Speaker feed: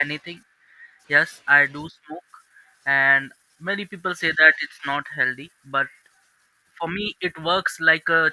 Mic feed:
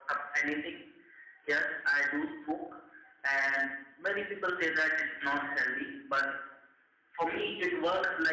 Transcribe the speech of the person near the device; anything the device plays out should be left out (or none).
none